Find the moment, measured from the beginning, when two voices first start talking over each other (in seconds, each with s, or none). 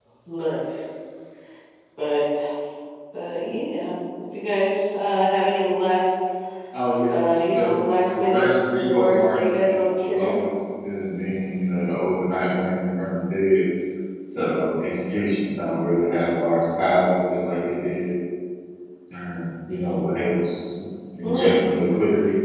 7.5 s